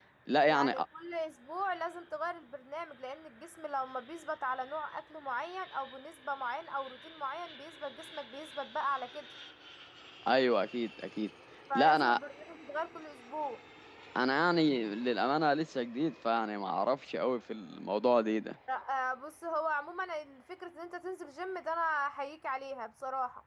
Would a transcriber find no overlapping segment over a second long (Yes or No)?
Yes